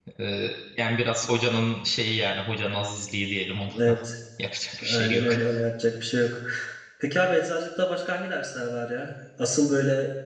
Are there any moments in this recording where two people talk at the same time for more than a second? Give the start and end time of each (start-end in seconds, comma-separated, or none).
none